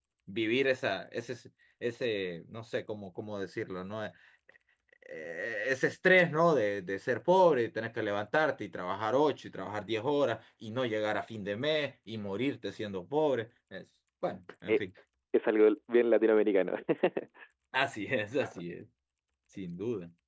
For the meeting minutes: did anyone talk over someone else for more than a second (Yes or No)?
No